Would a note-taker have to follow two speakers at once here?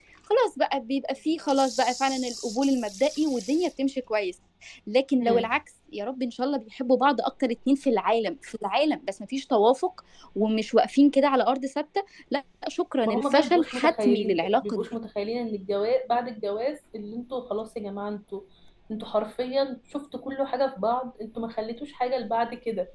Yes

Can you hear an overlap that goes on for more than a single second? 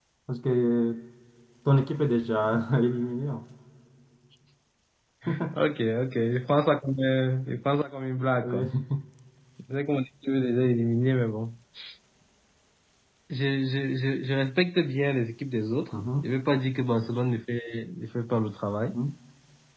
No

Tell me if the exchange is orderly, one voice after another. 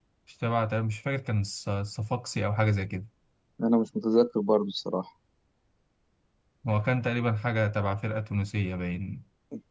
Yes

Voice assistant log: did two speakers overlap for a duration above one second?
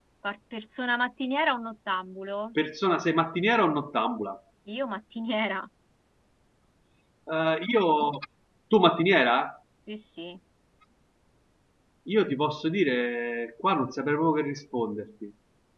No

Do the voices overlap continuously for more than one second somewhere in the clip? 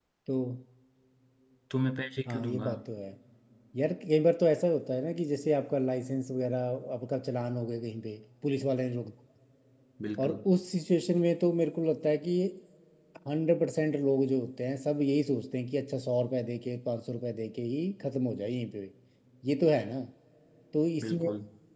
No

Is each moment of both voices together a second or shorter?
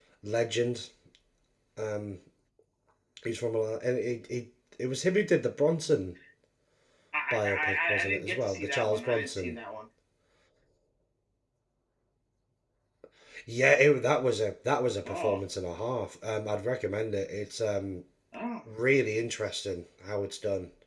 No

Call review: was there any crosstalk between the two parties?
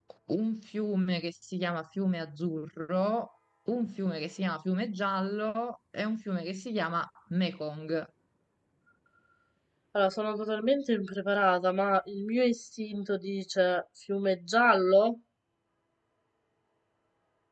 No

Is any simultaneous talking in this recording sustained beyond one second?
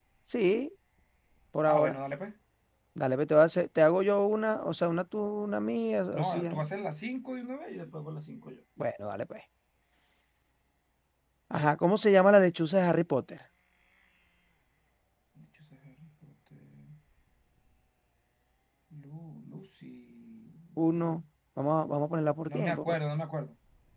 No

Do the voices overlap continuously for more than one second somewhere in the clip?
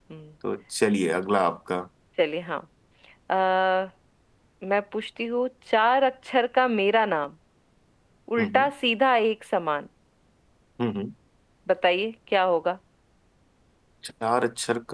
No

